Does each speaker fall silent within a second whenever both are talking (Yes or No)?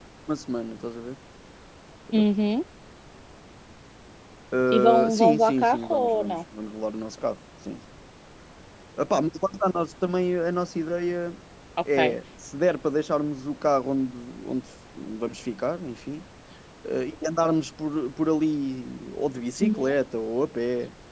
No